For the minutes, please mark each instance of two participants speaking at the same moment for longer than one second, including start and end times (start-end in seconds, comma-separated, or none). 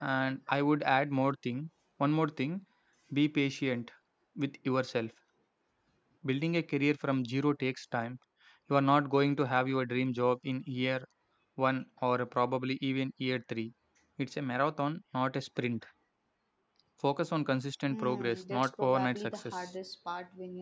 17.9-19.7